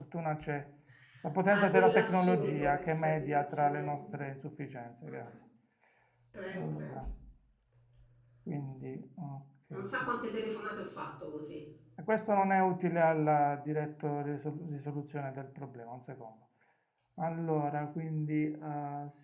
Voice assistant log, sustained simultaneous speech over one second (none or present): present